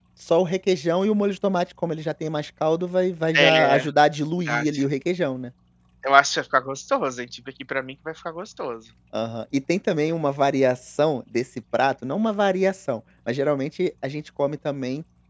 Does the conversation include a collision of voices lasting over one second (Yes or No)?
No